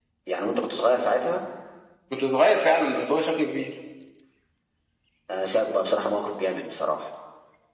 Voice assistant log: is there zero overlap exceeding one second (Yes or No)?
Yes